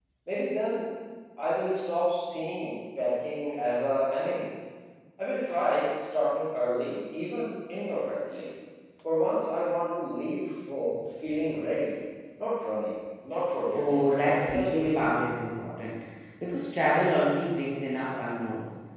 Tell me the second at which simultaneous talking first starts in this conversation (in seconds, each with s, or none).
13.7 s